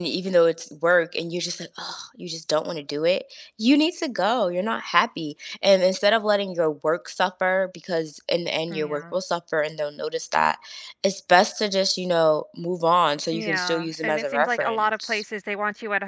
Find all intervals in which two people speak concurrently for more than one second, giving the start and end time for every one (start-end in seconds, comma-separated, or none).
13.3-15.2